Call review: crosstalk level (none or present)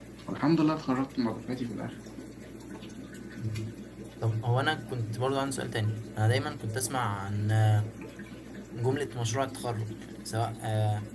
none